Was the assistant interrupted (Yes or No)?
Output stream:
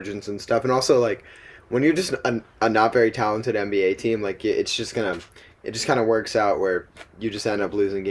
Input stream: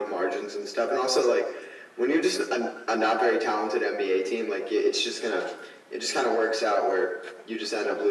No